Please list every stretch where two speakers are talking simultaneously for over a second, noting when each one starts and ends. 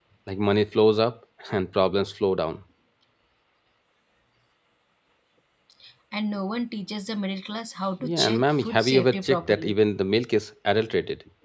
8.0-9.8

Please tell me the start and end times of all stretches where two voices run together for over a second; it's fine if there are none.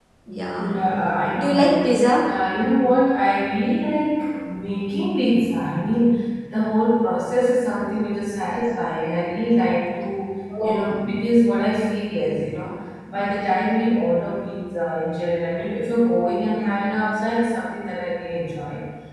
none

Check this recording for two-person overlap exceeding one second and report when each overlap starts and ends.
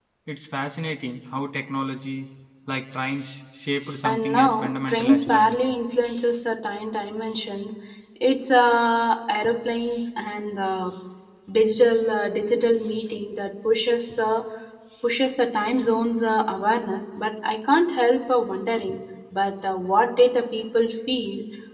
4.0-5.6

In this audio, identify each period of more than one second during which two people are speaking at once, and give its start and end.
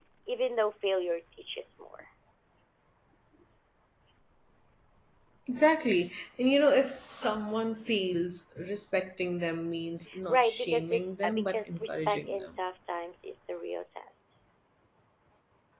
10.3-12.5

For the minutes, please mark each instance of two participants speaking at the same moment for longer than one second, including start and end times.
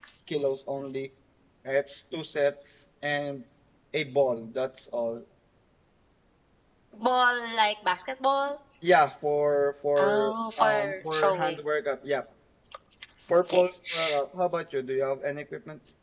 10.0-11.6

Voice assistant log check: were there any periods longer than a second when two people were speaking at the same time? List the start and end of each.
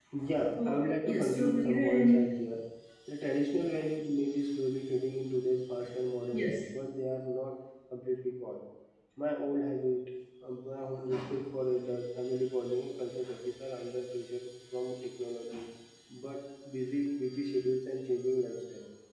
0.6-2.3

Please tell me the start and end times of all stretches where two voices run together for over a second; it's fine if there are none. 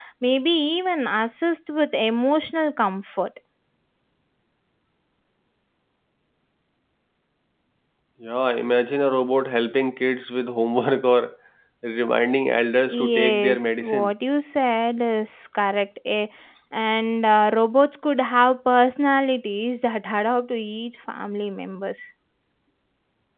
12.9-14.1

